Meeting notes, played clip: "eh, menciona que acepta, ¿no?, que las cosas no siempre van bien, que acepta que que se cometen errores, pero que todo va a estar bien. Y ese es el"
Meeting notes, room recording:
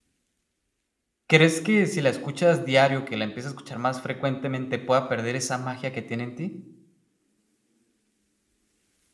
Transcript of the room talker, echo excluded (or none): ¿Crees que si la escuchas diario, que la empiece a escuchar más frecuentemente, pueda perder esa magia que tiene en ti?